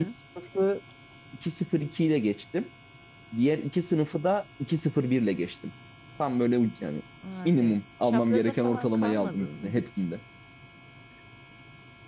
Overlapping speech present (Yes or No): Yes